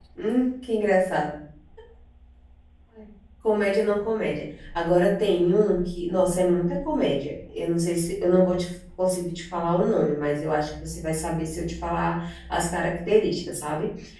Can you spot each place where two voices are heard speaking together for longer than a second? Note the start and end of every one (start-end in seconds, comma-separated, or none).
none